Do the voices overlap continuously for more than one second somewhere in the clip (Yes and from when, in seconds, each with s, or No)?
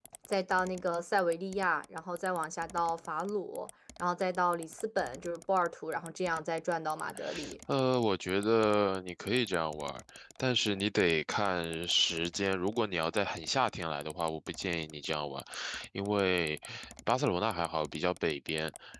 No